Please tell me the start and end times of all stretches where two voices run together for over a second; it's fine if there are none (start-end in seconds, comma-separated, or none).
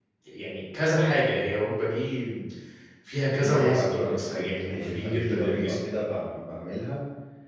3.4-5.8